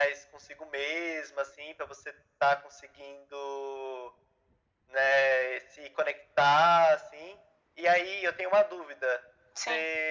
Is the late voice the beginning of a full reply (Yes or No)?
No